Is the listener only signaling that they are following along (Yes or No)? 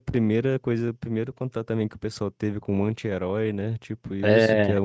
Yes